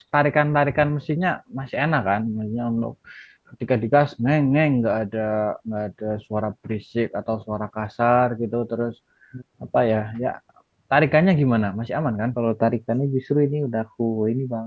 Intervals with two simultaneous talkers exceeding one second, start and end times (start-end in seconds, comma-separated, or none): none